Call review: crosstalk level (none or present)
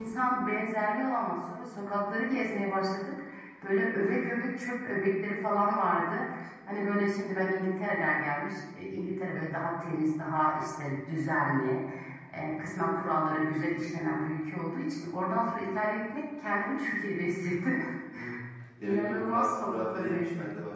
present